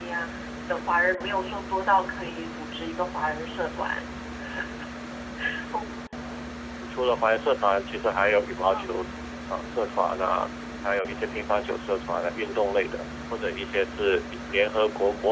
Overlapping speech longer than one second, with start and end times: none

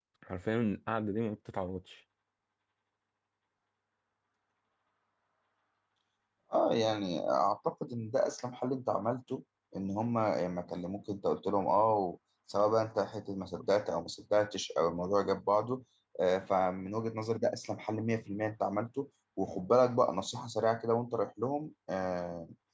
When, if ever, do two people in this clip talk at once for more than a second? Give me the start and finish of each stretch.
none

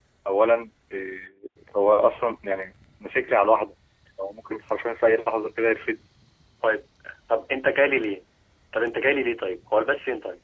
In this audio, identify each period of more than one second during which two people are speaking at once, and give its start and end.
none

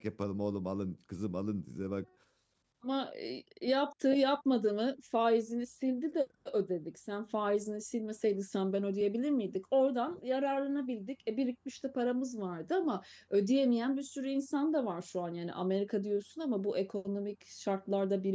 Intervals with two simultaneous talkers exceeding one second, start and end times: none

